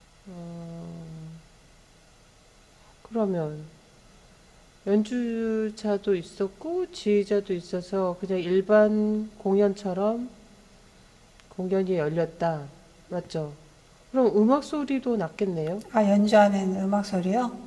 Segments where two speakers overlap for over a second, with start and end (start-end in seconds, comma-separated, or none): none